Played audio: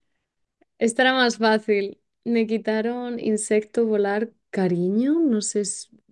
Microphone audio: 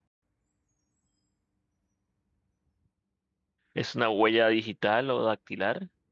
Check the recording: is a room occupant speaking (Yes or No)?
Yes